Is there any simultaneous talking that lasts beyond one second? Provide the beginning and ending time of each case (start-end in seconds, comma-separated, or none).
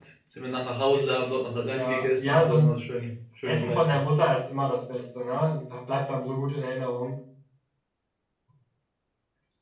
0.9-2.8